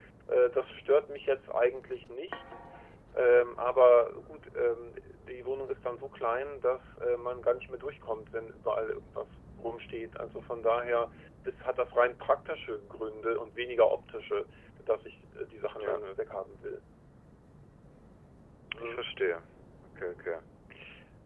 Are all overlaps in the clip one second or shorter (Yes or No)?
Yes